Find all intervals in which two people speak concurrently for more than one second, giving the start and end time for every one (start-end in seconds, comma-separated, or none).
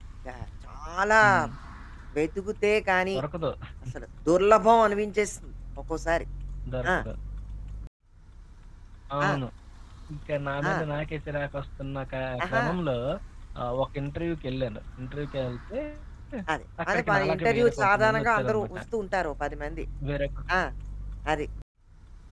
16.9-18.8